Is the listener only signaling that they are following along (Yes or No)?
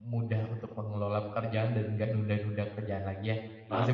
No